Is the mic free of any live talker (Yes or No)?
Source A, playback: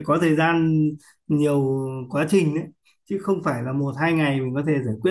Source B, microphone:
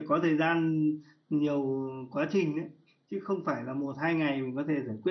Yes